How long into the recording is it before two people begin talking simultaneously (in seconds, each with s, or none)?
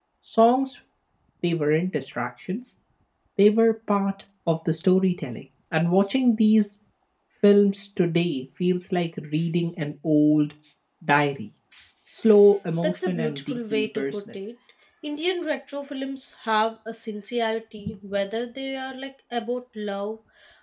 12.8 s